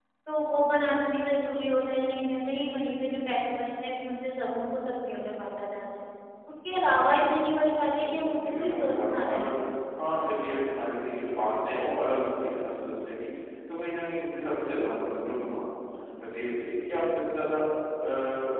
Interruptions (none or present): present